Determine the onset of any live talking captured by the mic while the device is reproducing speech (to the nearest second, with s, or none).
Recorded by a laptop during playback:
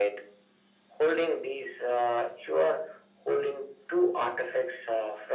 none